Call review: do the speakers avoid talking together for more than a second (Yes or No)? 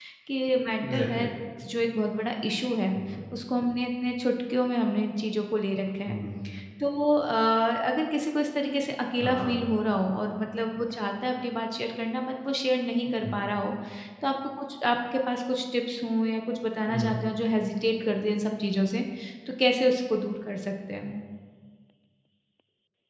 Yes